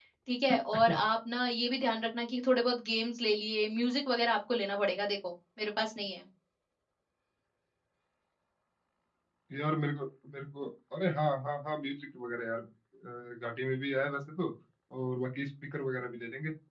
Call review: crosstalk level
none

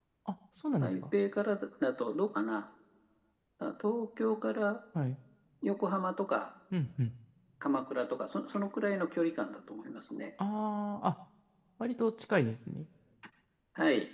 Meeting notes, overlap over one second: none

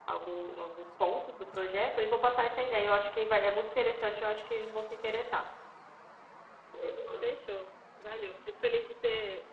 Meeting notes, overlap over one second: none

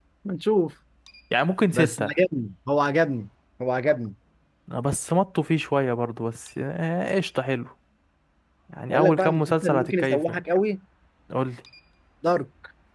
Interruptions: present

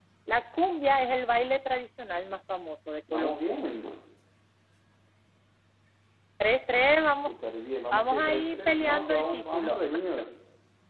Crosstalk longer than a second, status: present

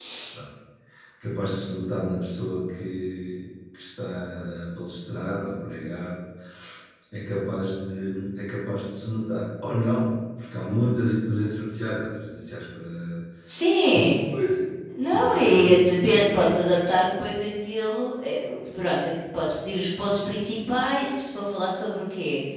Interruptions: present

